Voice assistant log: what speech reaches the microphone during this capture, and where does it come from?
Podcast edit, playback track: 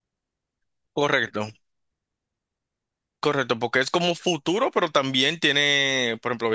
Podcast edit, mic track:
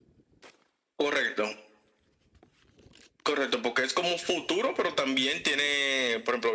echo only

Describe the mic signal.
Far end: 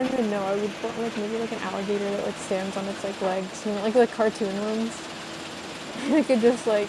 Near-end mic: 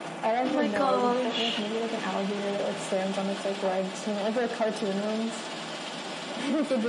both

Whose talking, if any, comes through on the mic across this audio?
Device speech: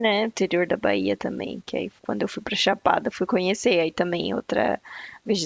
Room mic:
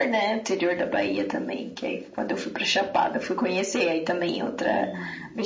both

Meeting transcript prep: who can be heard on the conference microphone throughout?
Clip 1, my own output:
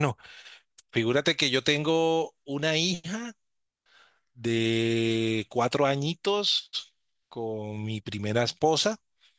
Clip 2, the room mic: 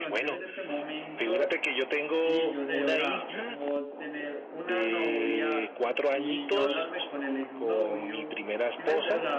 both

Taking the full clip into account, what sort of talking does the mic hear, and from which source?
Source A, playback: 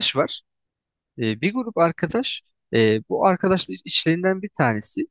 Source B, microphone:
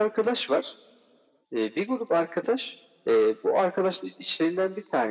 echo only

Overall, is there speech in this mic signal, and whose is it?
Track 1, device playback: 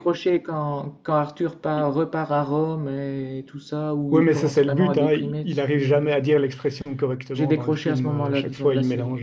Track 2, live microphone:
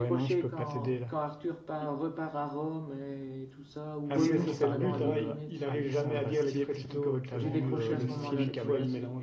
both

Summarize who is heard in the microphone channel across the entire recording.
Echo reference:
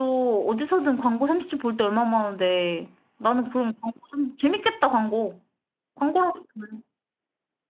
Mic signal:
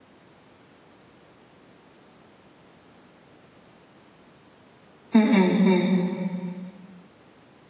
user only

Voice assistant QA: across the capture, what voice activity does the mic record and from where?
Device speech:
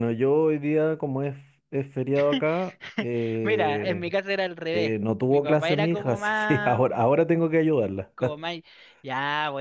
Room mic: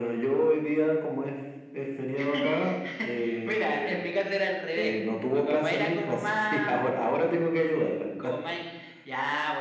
echo only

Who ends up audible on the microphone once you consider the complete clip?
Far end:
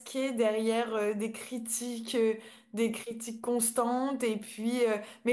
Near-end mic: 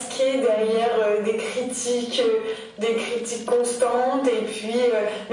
both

